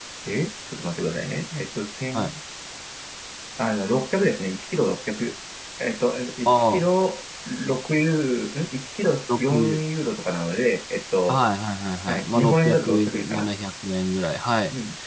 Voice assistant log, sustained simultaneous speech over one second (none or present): present